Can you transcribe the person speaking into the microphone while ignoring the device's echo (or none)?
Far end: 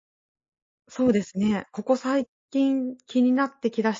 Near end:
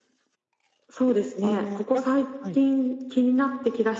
あの、なんはい。